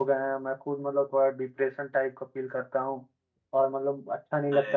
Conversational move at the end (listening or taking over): listening